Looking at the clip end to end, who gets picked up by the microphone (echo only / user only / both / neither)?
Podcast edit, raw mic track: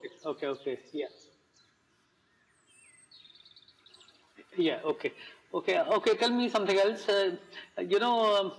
echo only